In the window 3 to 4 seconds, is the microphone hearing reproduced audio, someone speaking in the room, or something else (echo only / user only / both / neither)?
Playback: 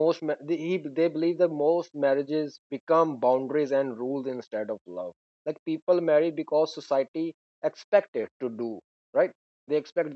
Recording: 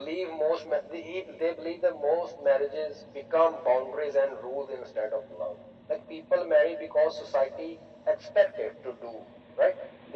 echo only